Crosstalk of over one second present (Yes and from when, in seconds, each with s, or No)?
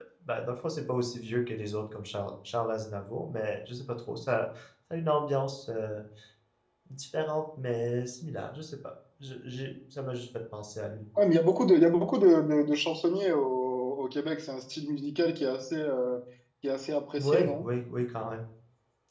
No